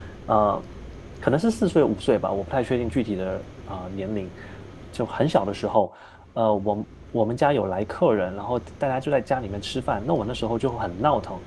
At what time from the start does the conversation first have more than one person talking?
none

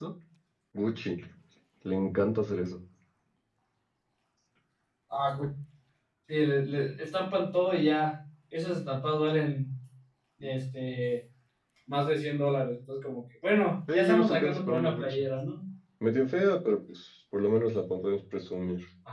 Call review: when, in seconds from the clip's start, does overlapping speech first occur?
13.9 s

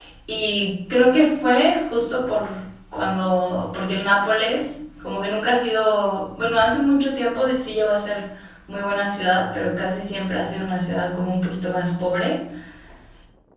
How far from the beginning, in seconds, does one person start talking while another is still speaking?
none

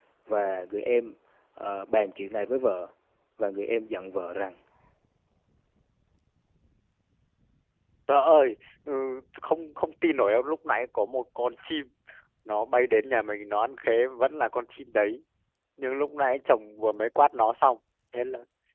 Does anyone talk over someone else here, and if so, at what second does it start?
none

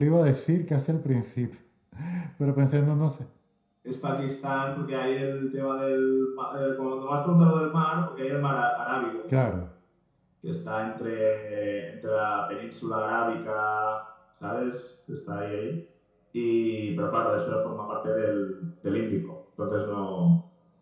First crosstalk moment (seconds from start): none

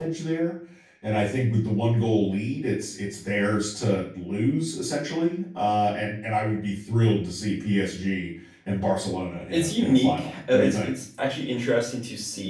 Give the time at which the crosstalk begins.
9.5 s

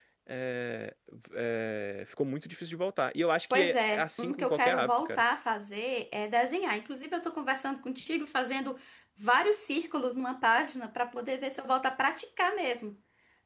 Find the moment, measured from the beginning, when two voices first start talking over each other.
3.5 s

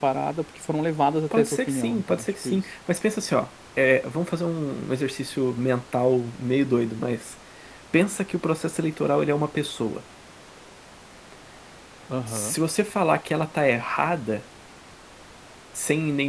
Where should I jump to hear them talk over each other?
1.4 s

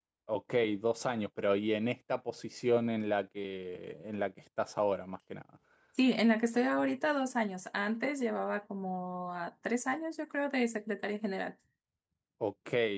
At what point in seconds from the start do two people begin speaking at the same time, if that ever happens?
none

